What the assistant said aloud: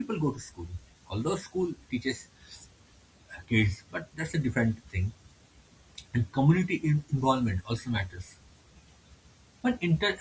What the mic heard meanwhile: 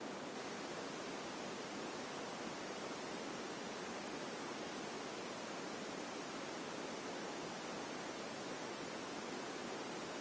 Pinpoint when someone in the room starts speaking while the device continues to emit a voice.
none

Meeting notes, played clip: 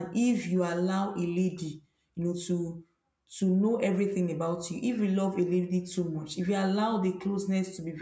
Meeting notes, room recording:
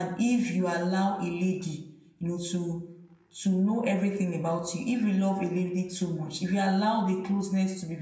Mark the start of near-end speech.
none

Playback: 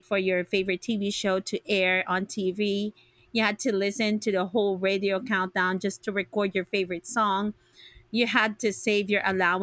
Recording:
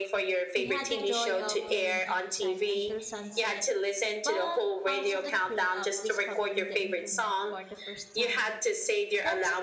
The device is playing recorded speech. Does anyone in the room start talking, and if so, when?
0.6 s

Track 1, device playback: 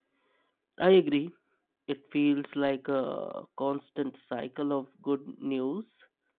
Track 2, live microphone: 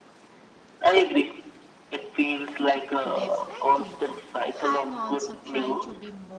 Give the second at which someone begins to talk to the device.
3.1 s

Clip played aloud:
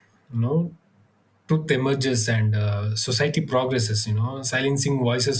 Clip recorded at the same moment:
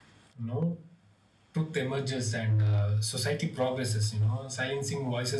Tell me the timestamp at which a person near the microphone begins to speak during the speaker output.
none

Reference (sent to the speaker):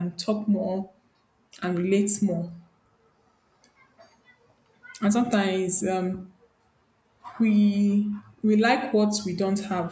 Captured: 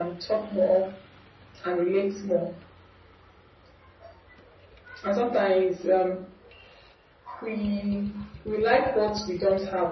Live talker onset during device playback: none

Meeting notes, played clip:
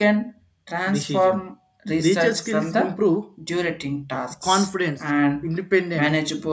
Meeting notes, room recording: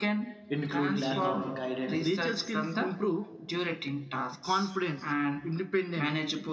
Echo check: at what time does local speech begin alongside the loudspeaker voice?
0.5 s

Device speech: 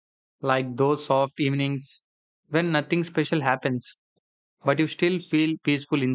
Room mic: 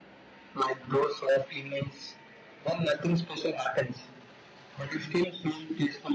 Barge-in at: none

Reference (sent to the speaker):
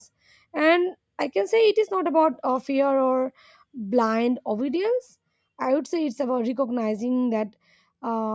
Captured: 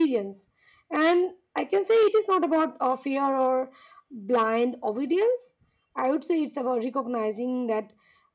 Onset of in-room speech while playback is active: none

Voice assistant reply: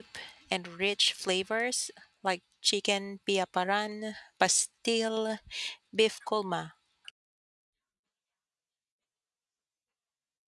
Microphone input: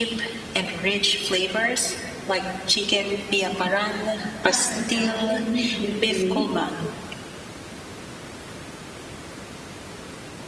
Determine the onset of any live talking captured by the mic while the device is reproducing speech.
4.5 s

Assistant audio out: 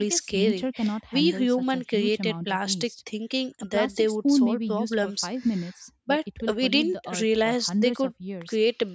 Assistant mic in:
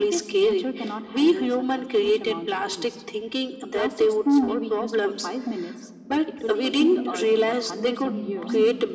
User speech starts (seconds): 6.3 s

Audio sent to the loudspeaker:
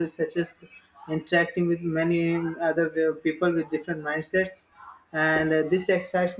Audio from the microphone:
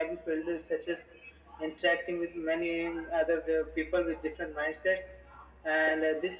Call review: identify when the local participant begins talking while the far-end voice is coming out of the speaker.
none

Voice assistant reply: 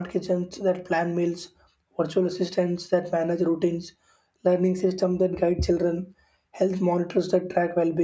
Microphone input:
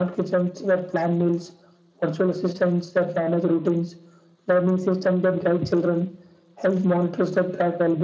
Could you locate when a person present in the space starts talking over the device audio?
none

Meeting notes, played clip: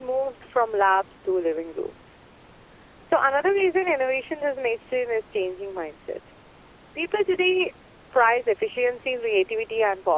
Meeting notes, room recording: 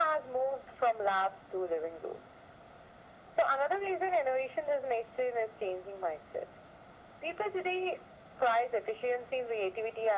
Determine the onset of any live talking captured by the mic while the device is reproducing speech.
none

